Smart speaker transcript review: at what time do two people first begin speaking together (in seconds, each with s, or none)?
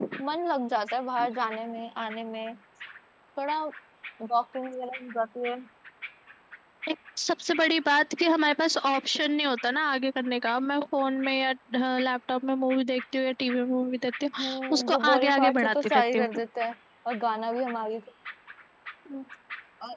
14.4 s